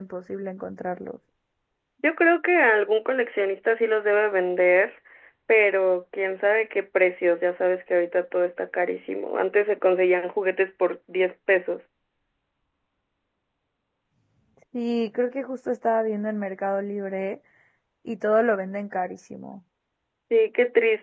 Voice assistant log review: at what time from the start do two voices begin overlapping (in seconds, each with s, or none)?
none